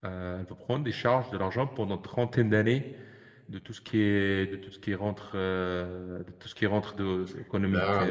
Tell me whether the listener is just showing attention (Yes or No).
Yes